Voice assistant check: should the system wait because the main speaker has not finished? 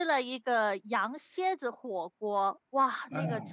Yes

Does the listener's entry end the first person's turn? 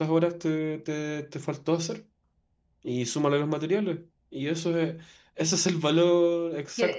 Yes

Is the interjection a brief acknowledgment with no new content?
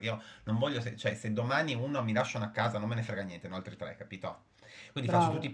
Yes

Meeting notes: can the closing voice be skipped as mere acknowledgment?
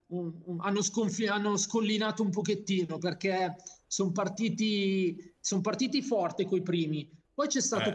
Yes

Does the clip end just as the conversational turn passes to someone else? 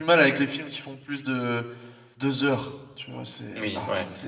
Yes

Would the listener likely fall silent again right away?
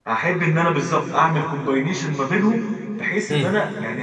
Yes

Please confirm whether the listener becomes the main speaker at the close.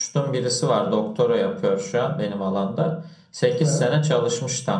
No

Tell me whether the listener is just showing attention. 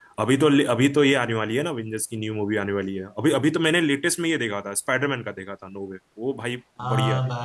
No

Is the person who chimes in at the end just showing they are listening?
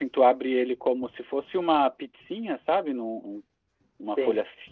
Yes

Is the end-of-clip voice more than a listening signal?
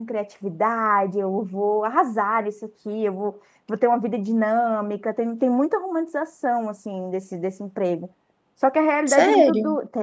No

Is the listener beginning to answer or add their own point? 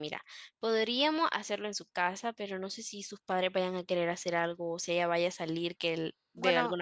Yes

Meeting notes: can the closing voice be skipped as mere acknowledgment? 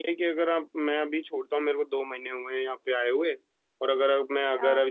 Yes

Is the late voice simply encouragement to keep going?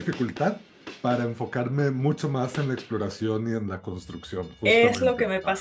No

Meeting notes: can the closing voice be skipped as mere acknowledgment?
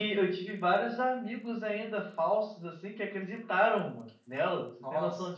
No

